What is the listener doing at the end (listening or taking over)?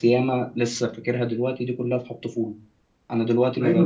taking over